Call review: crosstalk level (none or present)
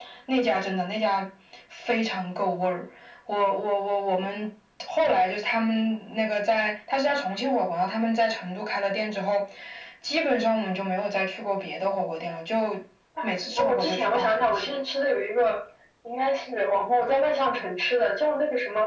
present